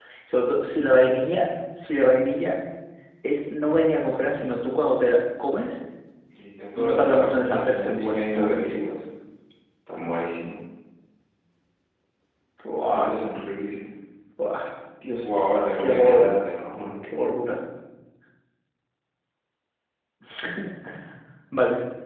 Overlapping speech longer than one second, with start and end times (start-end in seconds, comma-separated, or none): 6.8-8.9